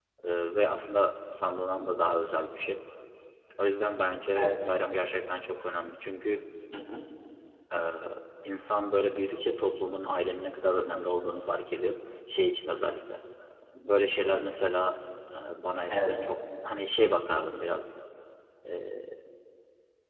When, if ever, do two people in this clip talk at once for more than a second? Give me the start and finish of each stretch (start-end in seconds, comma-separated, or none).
none